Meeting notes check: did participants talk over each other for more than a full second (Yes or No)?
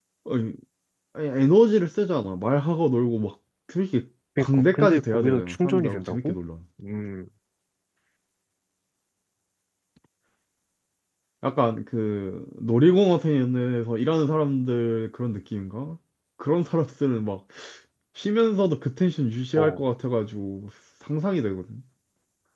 Yes